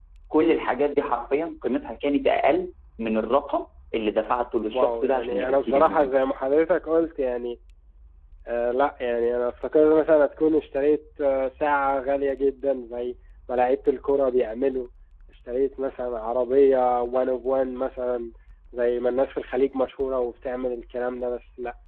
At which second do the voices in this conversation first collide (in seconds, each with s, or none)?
4.7 s